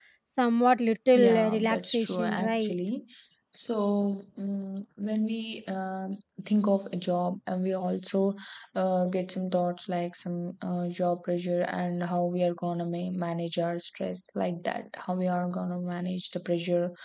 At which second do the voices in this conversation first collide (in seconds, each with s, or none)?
1.1 s